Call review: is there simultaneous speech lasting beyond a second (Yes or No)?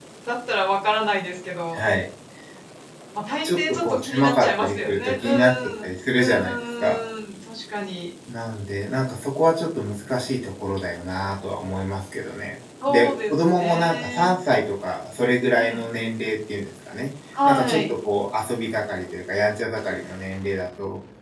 Yes